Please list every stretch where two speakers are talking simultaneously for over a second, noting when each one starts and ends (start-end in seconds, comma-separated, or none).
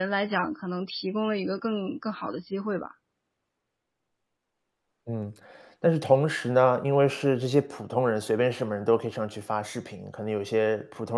none